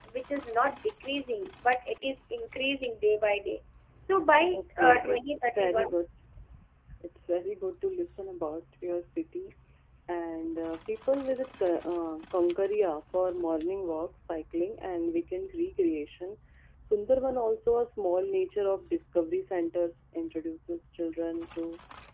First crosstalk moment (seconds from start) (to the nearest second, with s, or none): 4 s